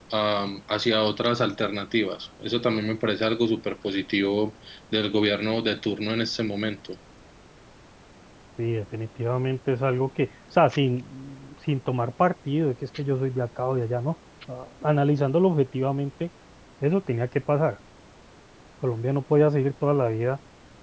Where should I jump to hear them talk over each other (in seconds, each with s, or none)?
none